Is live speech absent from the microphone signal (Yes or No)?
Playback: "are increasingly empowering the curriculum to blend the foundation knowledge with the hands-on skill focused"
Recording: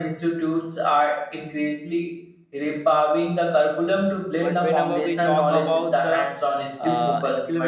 No